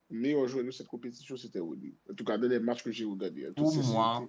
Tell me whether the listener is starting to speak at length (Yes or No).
Yes